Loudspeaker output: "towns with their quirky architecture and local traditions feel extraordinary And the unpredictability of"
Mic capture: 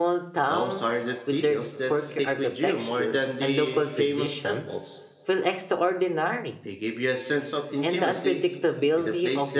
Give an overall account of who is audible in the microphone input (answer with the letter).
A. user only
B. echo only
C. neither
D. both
D